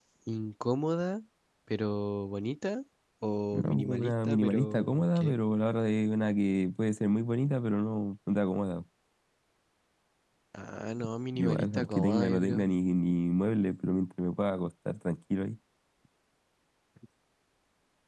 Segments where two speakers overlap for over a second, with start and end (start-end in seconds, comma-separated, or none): 3.5-5.4, 11.3-12.7